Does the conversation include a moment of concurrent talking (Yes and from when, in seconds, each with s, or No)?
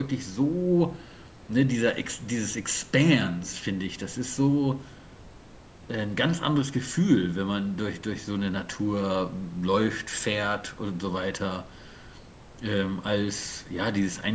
No